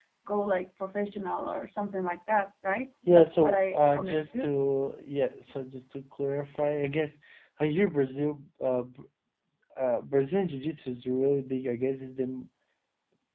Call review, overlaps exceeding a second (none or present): present